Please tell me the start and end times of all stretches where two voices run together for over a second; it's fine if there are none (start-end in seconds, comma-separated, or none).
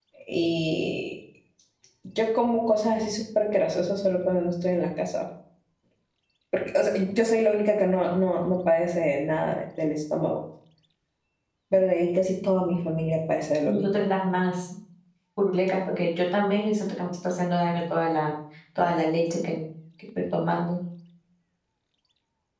none